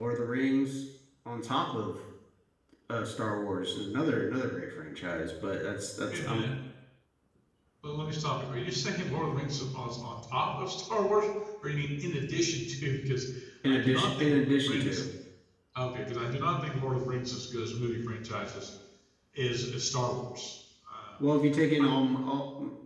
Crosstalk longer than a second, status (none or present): present